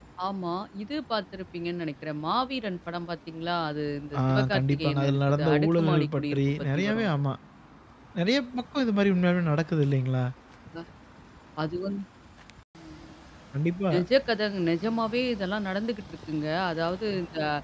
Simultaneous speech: Yes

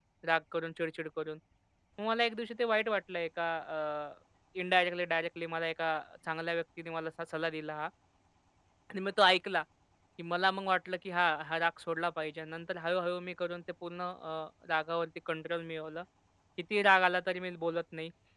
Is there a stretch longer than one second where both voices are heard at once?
No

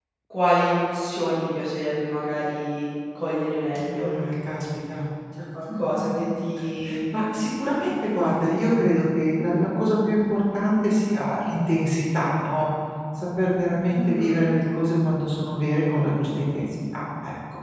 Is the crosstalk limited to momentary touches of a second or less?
Yes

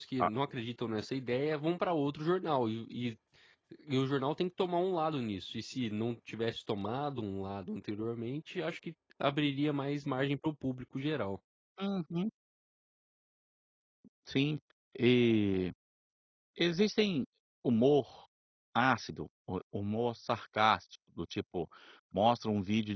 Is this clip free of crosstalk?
Yes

